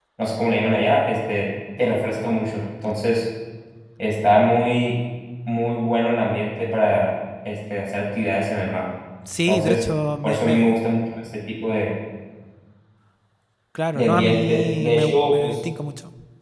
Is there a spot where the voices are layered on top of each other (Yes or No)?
Yes